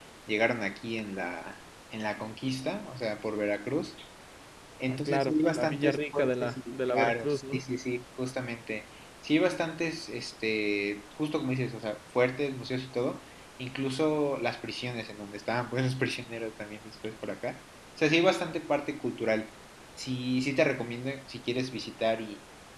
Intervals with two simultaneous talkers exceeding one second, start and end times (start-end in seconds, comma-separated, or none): 4.9-7.6